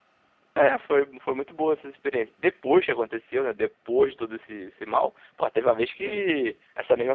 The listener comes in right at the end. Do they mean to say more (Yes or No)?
No